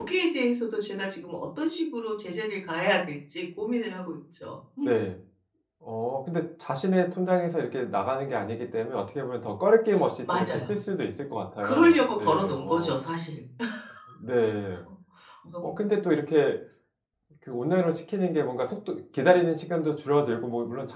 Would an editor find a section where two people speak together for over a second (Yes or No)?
Yes